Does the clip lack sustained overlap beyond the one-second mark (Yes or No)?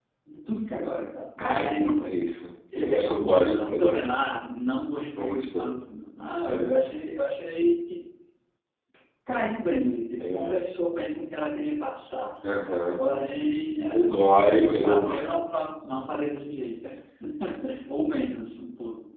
No